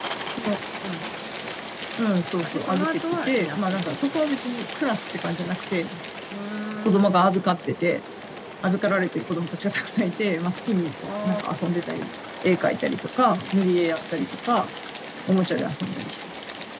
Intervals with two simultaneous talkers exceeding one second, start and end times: 2.5-4.2

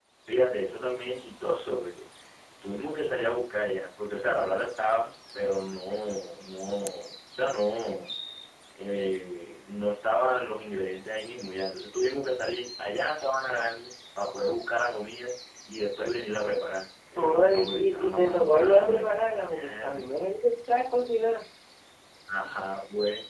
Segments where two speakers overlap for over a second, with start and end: 17.2-19.9

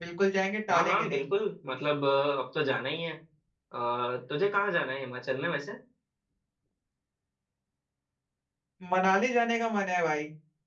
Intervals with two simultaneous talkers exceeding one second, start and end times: none

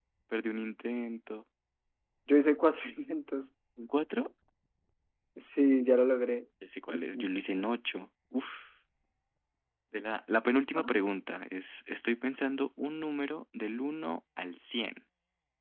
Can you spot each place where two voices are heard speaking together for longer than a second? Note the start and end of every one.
none

